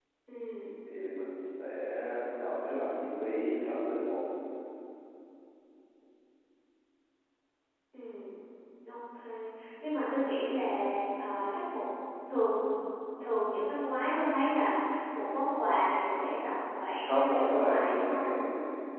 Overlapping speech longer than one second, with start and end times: 17.0-18.3

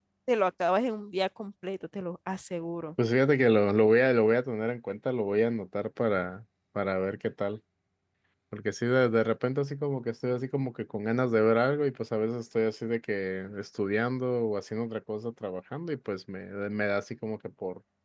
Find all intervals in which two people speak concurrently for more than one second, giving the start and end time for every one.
none

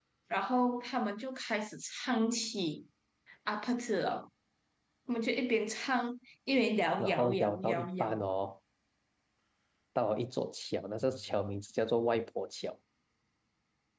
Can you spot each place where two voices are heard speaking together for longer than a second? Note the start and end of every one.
7.0-8.2

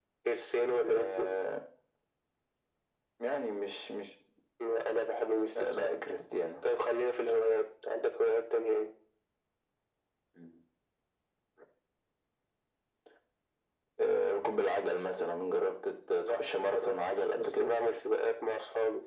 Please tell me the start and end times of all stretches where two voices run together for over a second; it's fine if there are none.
16.2-17.8

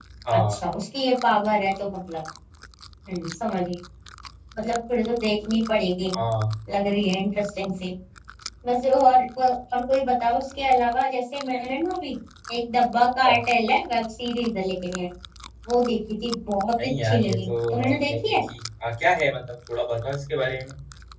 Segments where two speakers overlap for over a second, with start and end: 16.8-18.4

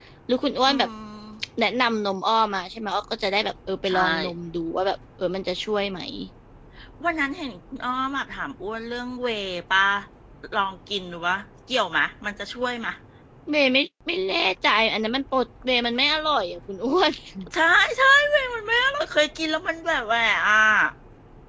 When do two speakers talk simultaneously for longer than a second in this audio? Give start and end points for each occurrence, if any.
none

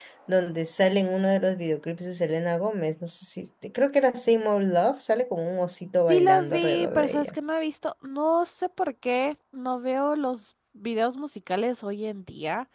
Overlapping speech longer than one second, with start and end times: 6.1-7.3

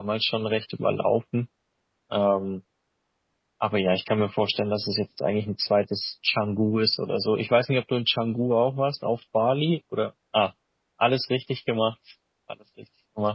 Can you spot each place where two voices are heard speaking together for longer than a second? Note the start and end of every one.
none

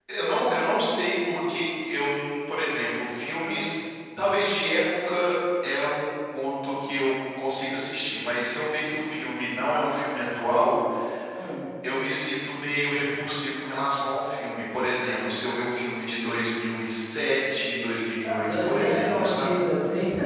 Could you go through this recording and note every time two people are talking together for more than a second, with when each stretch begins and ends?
18.2-19.5

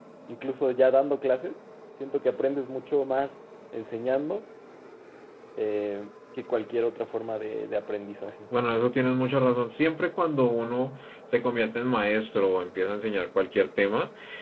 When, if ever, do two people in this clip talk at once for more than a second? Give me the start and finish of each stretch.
none

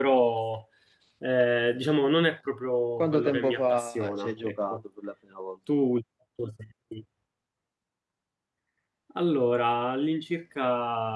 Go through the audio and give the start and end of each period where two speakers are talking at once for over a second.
3.0-4.8

